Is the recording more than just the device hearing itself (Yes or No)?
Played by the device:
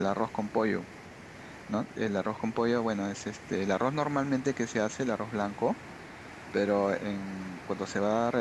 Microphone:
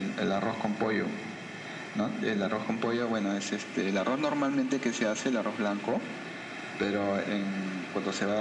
No